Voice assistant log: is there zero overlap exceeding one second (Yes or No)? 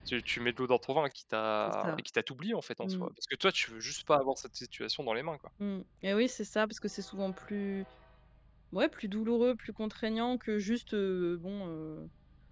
Yes